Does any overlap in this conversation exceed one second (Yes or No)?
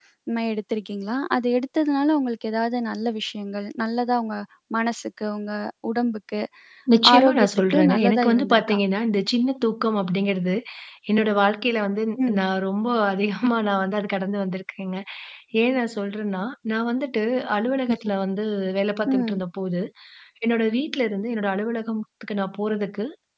Yes